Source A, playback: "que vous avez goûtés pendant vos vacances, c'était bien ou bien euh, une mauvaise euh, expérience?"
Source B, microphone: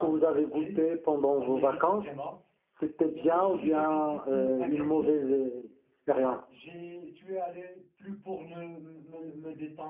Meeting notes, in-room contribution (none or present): present